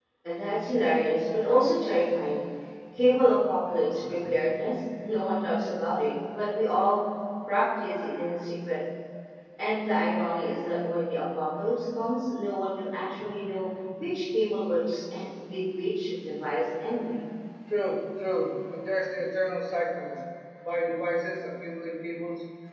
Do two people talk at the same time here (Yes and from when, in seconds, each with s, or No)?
No